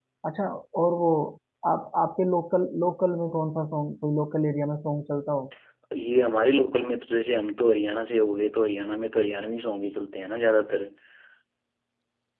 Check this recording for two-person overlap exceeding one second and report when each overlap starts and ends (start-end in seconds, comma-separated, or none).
none